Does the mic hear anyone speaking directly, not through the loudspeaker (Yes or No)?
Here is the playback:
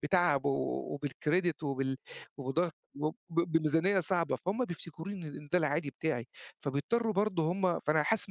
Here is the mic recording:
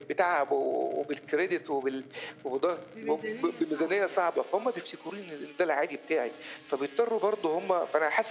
Yes